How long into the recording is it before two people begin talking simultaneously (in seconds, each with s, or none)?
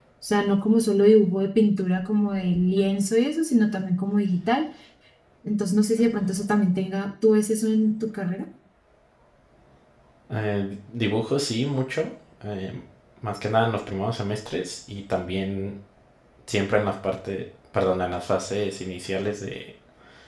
none